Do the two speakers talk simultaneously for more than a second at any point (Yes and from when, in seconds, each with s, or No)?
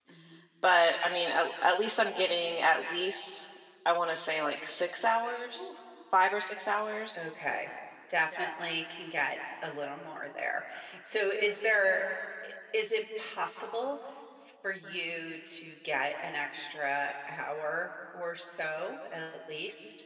No